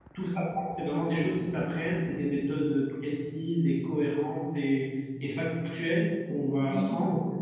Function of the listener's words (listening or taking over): listening